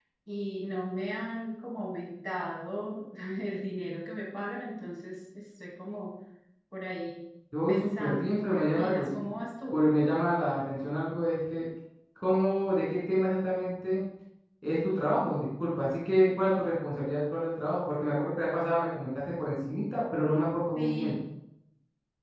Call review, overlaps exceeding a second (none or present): present